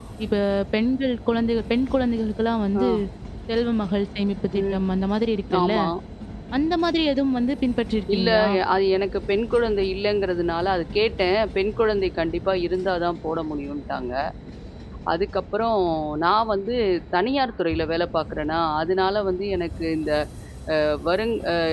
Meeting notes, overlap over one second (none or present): none